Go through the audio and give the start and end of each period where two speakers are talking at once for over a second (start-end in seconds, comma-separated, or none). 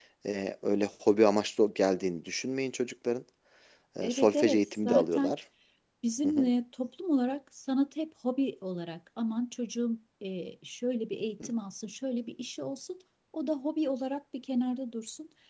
4.0-5.3